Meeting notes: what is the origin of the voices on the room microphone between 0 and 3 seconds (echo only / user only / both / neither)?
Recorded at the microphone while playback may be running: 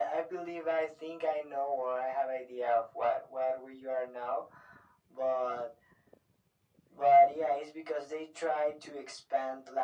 echo only